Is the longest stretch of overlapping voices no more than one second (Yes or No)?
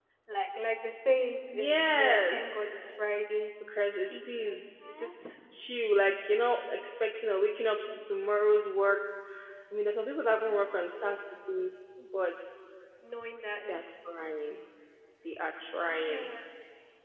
No